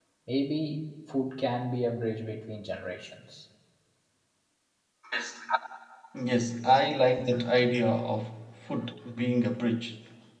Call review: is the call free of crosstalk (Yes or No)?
Yes